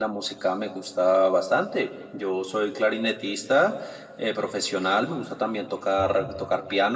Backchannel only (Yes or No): Yes